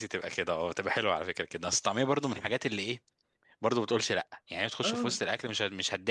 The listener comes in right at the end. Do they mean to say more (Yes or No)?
No